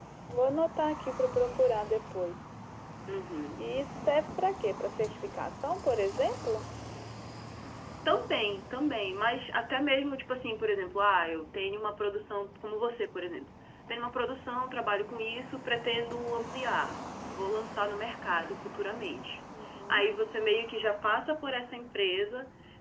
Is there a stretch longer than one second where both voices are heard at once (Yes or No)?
No